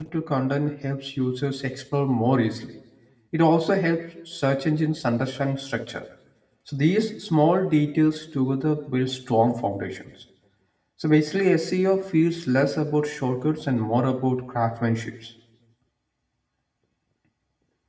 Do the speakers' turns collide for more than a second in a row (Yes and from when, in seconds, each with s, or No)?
No